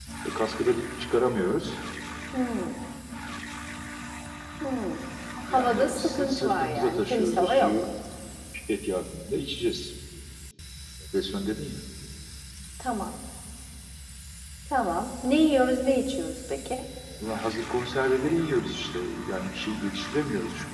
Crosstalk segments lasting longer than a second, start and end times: 5.4-7.7

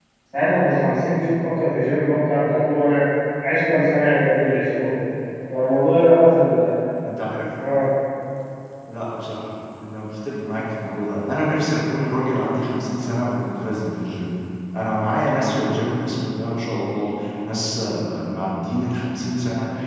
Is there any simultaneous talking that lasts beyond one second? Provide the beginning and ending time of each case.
none

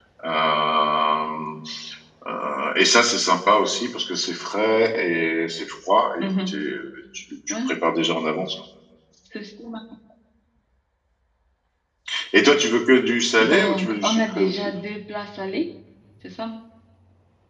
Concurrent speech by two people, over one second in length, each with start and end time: 13.4-14.7

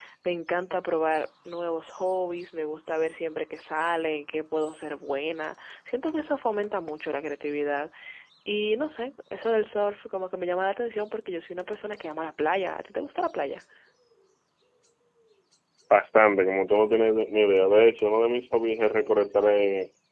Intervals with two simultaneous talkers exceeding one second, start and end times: none

